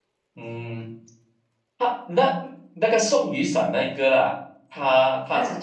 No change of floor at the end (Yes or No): Yes